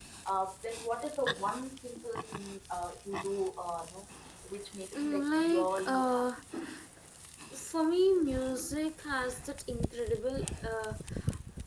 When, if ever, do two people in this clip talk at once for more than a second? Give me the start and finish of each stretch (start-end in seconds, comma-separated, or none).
4.9-6.4